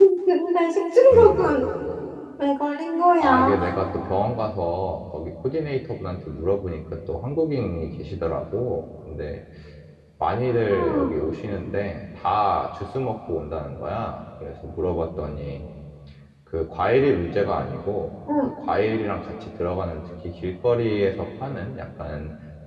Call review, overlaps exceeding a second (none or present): none